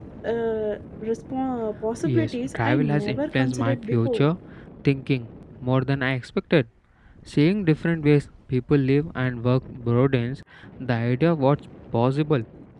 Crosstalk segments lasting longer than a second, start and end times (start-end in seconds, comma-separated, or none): 2.0-4.2